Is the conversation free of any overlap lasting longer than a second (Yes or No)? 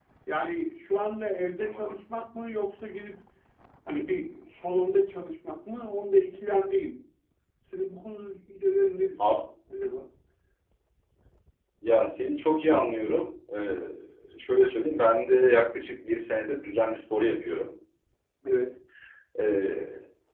Yes